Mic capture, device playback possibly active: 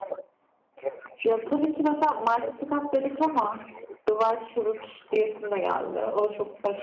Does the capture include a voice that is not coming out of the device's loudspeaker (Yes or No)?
Yes